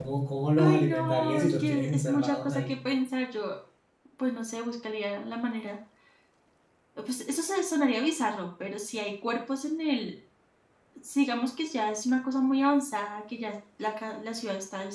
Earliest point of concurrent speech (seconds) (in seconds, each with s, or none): 0.6 s